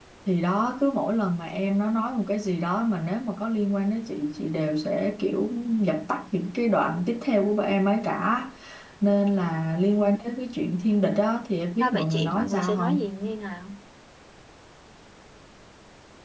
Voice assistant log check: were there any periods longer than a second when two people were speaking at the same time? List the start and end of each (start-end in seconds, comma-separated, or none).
11.8-13.0